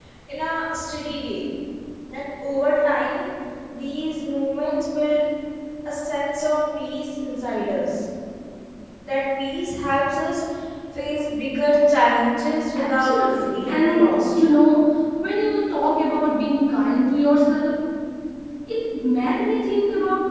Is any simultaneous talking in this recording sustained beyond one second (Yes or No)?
Yes